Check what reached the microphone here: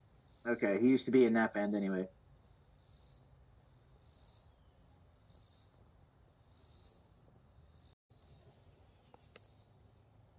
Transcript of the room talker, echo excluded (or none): Okay, he used to be in that band anyway.